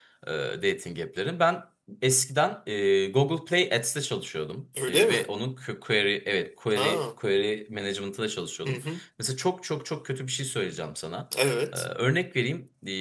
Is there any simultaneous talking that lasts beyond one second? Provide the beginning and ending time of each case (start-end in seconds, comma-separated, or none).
none